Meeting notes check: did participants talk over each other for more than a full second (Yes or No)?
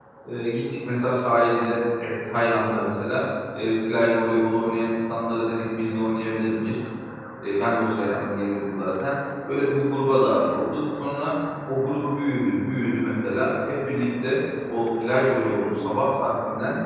No